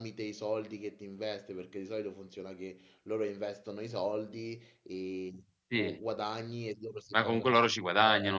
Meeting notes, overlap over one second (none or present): none